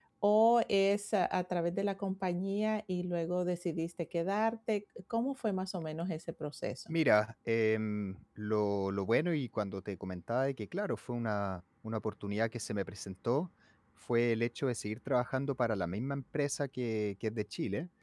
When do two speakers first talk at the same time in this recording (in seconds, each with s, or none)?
none